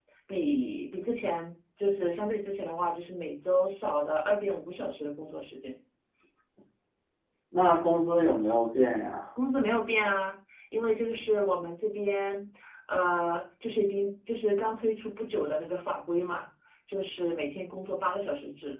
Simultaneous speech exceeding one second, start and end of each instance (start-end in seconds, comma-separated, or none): none